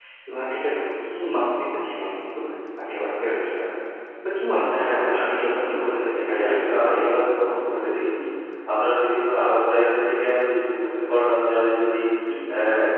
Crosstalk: present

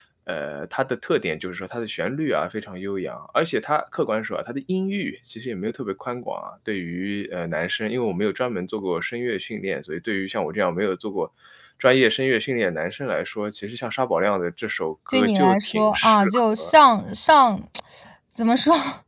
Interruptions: present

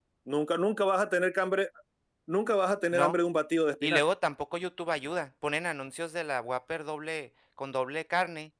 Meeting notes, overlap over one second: none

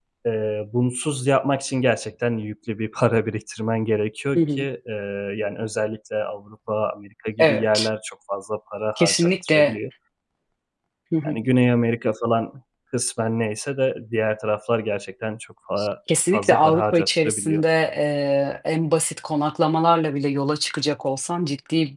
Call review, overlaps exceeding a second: present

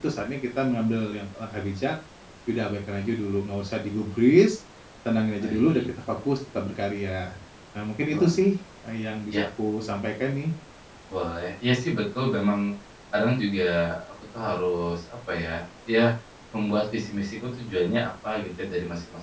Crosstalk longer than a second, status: none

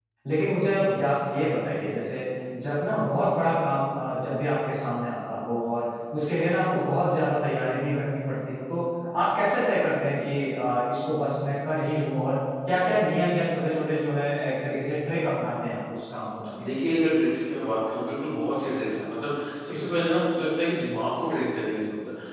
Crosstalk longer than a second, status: none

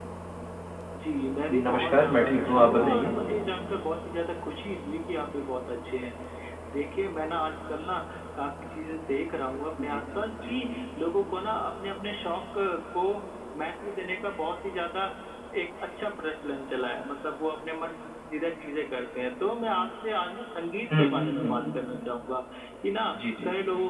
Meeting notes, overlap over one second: present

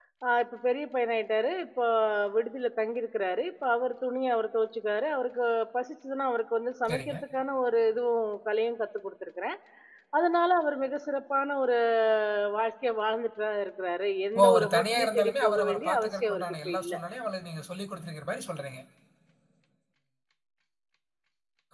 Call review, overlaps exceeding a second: present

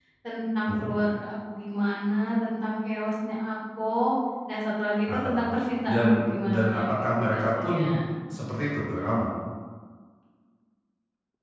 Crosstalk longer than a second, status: present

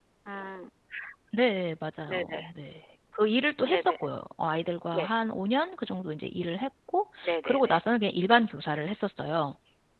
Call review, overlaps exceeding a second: none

